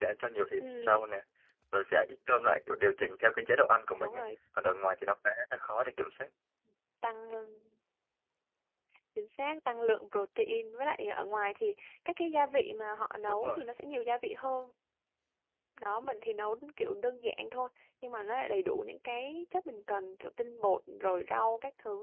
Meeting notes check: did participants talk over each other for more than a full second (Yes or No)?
No